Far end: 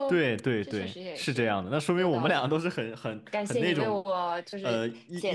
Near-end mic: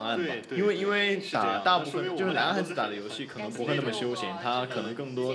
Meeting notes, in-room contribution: present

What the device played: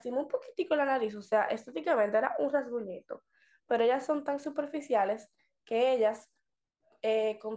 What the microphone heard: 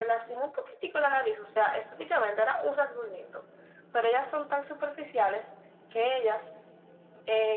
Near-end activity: none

